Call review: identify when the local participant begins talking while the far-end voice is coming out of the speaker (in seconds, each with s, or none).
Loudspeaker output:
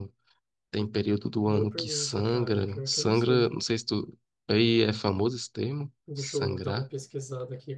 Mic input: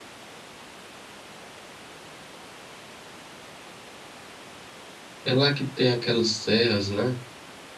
5.2 s